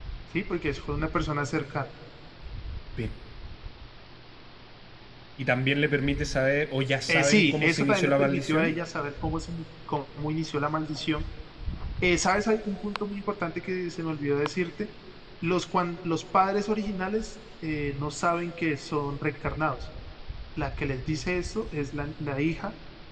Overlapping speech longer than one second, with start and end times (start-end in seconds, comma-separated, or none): 7.1-8.7